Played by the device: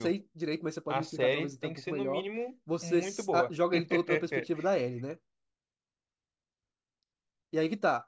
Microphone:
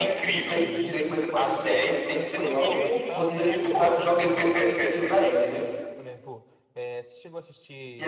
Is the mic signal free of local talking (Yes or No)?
No